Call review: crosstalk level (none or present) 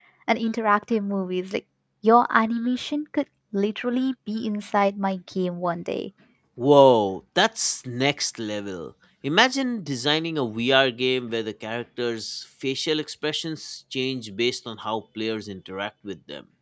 none